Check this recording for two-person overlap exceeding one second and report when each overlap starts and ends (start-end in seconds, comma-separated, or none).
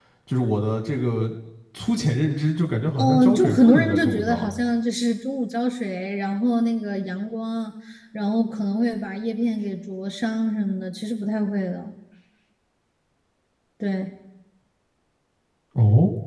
3.0-4.5